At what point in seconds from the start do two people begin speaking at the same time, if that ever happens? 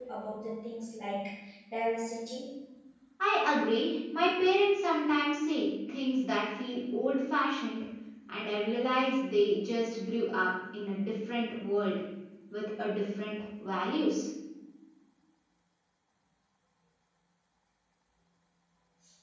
none

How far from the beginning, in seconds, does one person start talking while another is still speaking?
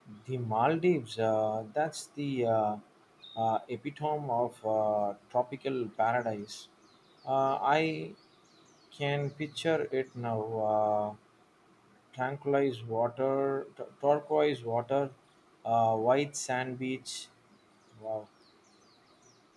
none

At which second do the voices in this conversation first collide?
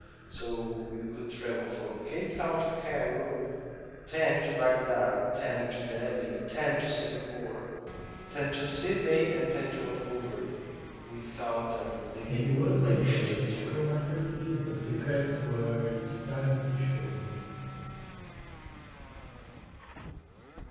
12.2 s

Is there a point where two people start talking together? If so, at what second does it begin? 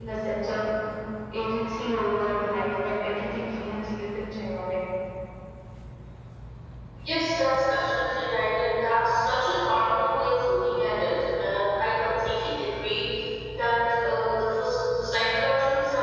none

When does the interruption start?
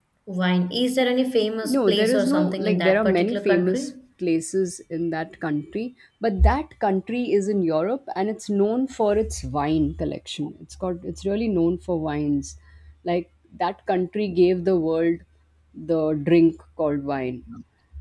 1.6 s

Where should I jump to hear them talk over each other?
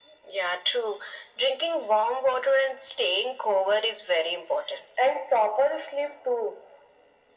none

